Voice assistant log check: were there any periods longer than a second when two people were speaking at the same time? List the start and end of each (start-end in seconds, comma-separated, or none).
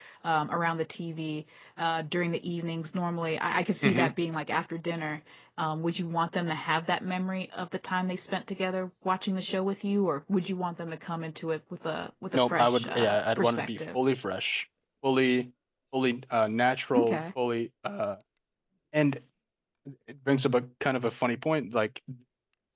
12.3-13.9